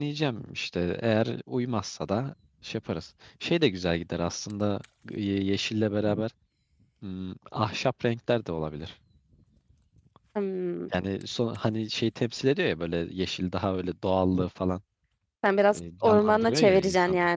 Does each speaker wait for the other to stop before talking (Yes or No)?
No